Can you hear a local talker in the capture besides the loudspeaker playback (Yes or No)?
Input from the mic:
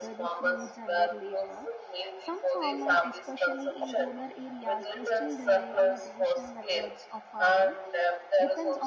Yes